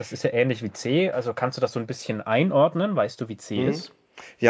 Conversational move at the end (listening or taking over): taking over